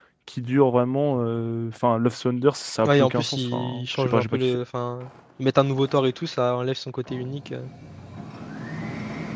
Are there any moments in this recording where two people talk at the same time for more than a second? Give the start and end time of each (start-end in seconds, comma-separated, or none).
2.8-4.4